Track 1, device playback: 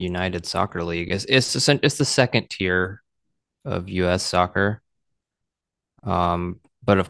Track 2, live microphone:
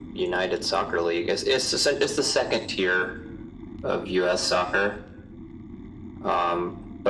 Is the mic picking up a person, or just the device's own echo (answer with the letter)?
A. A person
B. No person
B